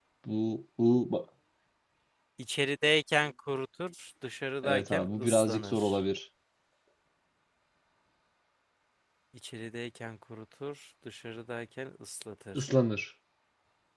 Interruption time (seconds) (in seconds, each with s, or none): 4.6 s